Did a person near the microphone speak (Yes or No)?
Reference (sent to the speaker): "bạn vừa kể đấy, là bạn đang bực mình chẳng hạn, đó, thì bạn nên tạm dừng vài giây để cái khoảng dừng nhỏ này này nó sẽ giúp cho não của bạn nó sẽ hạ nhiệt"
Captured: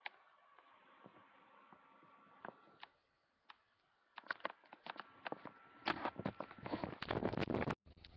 No